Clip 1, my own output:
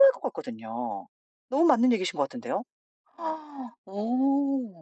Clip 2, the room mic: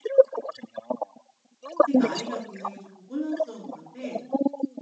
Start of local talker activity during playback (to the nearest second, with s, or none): 2 s